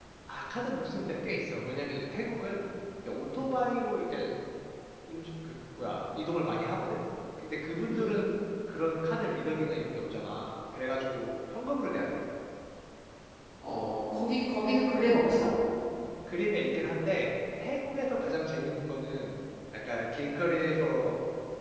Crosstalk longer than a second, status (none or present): none